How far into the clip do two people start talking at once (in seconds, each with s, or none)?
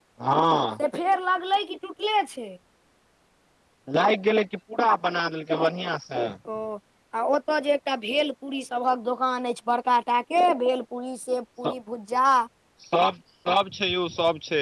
none